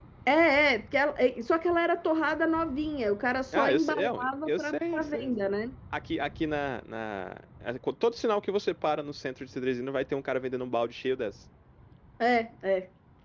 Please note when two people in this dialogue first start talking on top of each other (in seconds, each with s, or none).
3.5 s